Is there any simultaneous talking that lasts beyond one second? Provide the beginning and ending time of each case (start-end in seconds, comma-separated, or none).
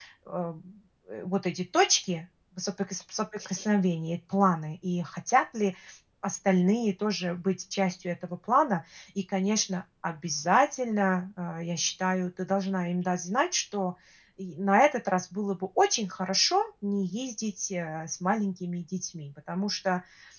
none